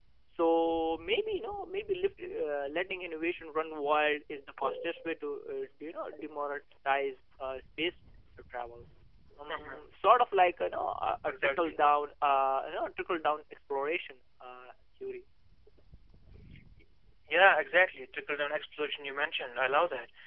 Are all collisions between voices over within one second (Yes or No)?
Yes